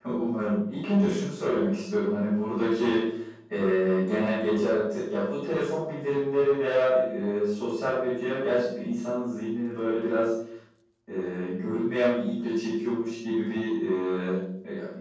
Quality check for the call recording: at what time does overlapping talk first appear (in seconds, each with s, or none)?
none